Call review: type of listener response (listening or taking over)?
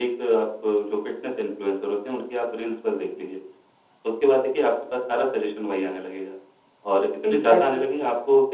listening